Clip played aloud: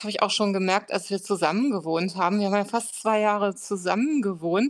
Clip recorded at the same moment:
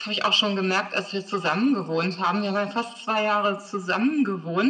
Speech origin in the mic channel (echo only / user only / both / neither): echo only